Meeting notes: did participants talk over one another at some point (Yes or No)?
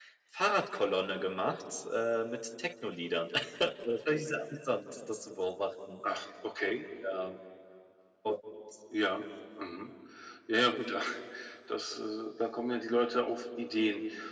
No